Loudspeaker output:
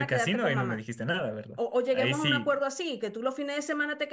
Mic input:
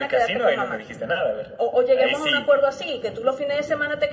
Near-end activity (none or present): none